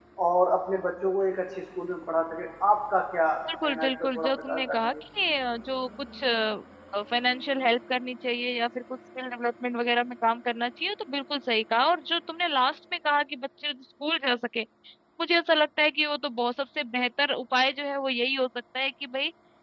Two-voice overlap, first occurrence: 3.4 s

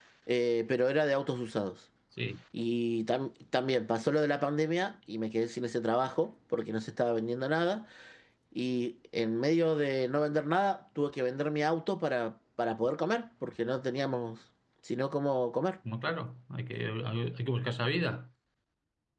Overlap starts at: none

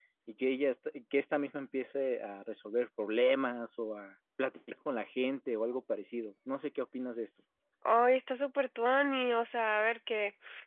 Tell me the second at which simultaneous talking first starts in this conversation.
none

